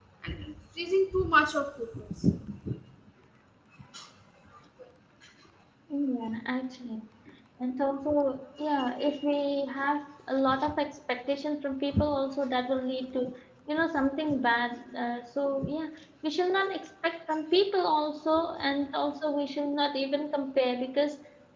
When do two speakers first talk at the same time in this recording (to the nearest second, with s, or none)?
none